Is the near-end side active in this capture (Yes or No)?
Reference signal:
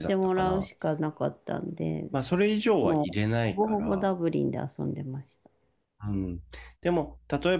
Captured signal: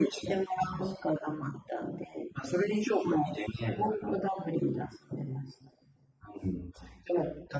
No